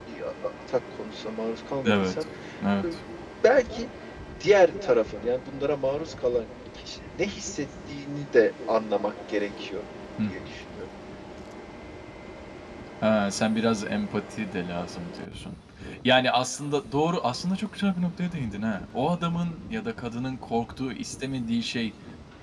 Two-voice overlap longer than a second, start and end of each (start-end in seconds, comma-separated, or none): none